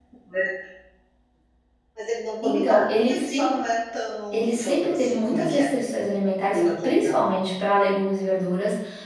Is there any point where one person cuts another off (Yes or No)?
Yes